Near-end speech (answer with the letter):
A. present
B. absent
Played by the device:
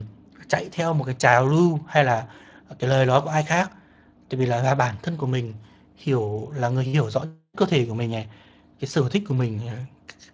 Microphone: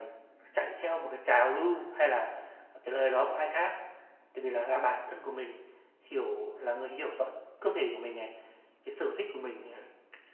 B